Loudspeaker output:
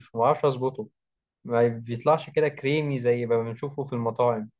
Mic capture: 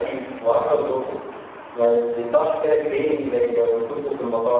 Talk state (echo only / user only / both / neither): echo only